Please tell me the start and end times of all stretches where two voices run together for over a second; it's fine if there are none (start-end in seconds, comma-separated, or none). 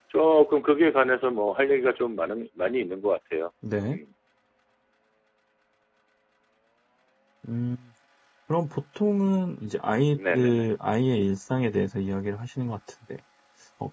none